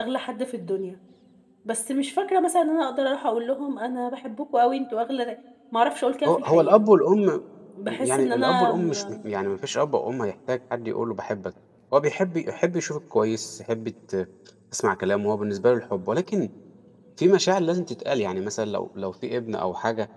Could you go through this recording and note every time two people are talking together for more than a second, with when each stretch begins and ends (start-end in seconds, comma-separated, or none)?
7.9-9.2